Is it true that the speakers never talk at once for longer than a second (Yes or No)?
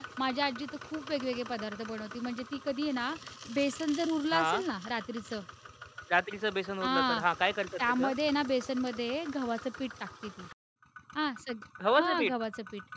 Yes